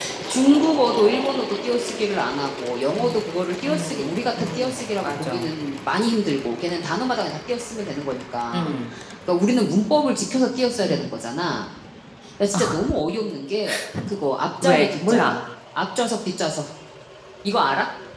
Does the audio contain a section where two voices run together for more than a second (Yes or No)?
Yes